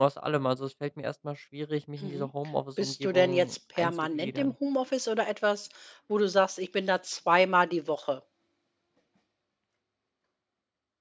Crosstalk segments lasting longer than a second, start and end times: 2.8-4.5

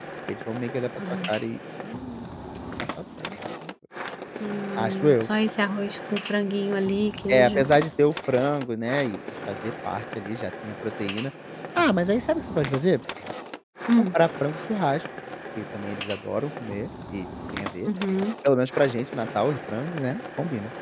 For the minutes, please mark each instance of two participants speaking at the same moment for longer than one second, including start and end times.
none

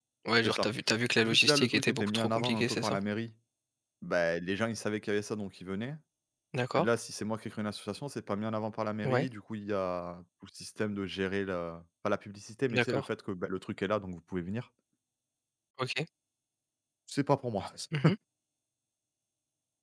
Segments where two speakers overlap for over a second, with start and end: 1.2-3.0

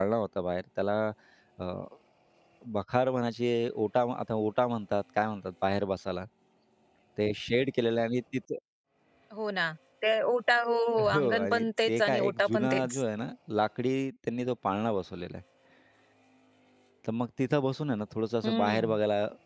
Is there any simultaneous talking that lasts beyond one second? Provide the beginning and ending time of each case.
11.1-13.0

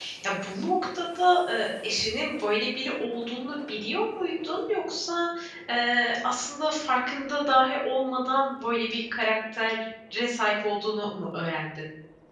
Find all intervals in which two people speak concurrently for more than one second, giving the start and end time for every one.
none

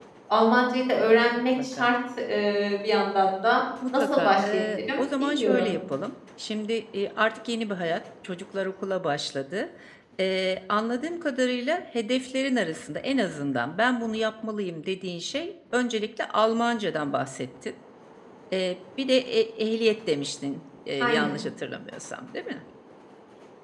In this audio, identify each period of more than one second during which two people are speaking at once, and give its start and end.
3.9-5.7

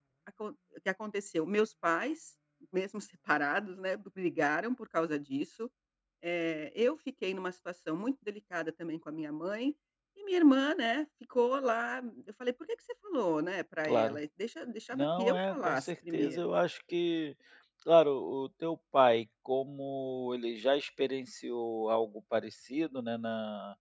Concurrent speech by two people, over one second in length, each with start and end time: 14.9-16.5

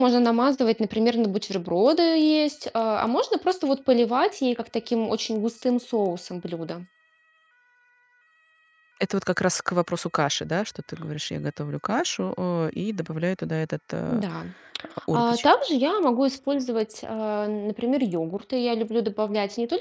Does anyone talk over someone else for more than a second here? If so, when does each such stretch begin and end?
none

